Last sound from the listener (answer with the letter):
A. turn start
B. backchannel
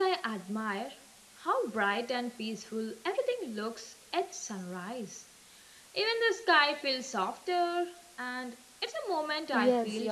A